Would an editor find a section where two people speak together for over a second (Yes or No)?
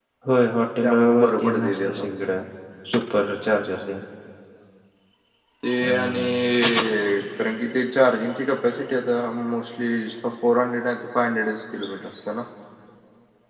Yes